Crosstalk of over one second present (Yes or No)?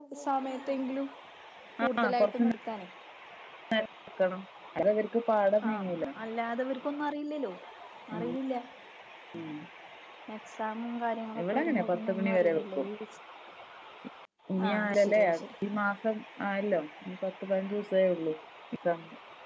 Yes